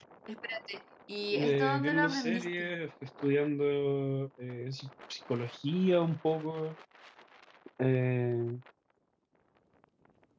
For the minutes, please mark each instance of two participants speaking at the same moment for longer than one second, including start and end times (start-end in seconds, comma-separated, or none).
1.3-2.7